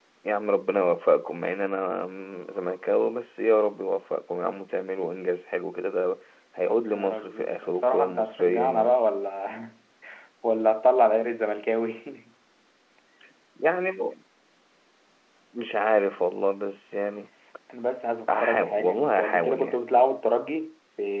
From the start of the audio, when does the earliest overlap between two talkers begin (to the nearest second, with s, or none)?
7 s